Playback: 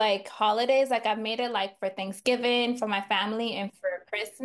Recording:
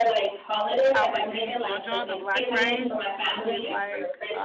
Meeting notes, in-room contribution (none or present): present